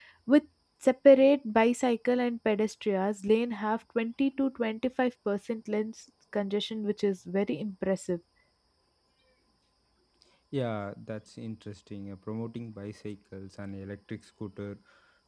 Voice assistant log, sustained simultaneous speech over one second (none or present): none